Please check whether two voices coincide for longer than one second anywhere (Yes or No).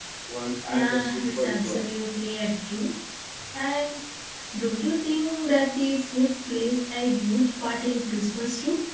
Yes